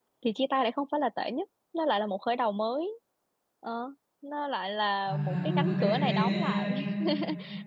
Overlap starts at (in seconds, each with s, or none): 5.0 s